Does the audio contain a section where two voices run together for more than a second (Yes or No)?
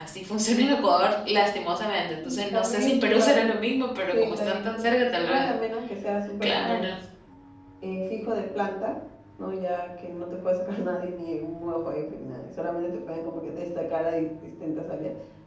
Yes